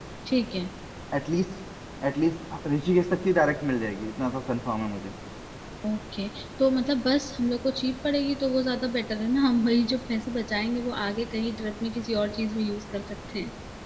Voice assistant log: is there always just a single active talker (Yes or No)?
Yes